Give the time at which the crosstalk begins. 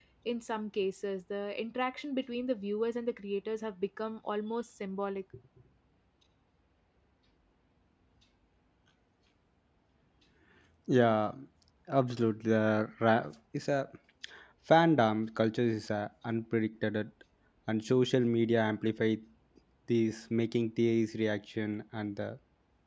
none

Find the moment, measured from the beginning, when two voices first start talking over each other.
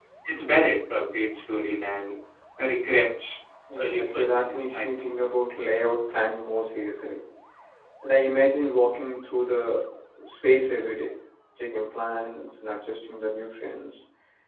4 s

